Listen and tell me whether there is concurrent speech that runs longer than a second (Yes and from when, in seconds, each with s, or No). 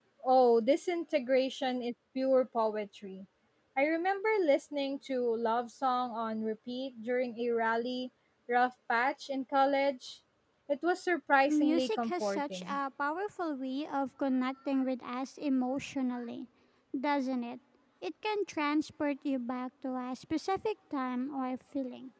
Yes, from 11.5 s